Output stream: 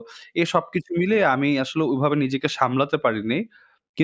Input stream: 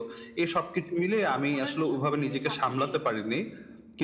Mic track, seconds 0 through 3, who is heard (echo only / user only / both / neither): both